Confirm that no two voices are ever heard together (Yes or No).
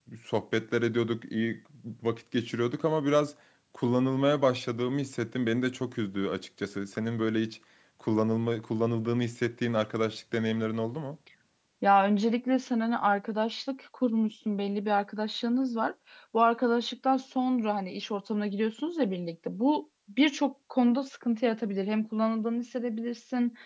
Yes